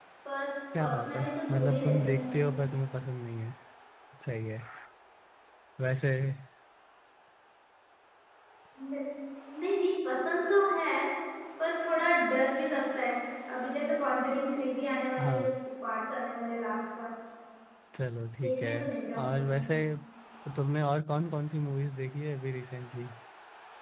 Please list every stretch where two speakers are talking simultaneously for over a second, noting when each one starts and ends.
0.8-2.5

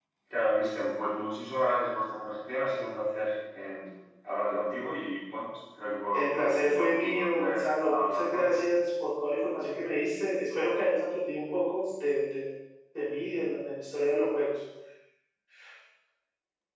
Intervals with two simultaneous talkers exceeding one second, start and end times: 6.1-8.6

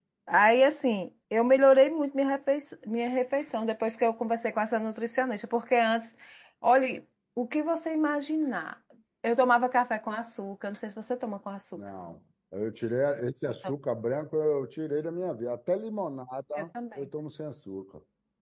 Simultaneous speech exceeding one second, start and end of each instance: none

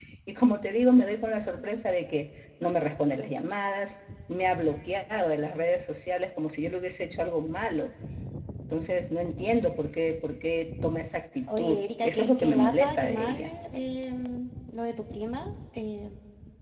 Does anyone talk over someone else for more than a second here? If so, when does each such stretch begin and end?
11.5-13.3

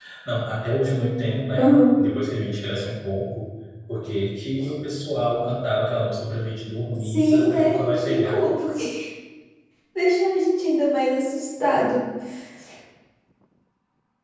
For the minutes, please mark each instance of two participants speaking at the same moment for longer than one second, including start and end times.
7.0-8.4

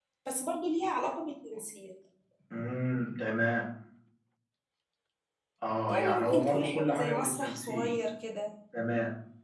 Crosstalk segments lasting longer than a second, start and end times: 5.9-7.9

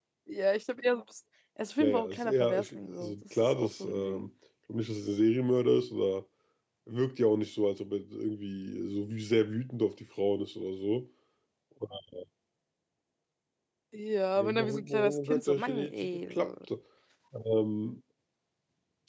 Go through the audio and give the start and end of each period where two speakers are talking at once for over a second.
1.8-4.3, 14.4-16.5

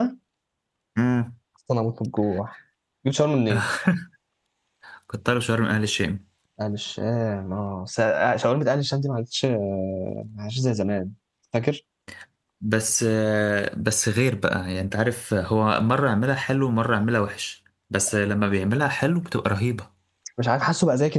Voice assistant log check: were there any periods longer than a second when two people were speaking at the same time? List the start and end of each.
none

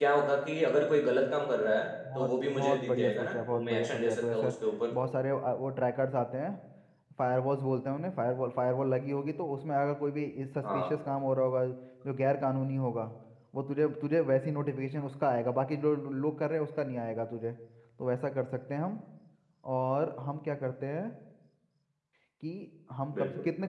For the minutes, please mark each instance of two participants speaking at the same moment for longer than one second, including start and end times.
2.2-4.5

